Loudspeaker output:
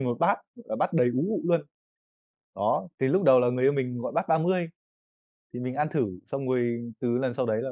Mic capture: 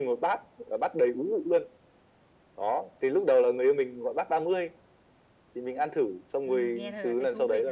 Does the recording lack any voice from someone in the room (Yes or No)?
No